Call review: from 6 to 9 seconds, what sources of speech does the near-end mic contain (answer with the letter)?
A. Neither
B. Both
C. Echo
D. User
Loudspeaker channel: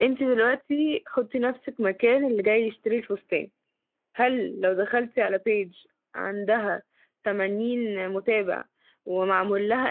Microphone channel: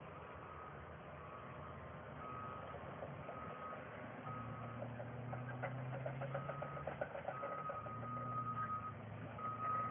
A